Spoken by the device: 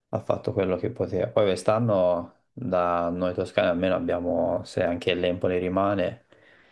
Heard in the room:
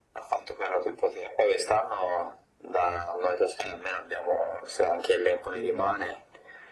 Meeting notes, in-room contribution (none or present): present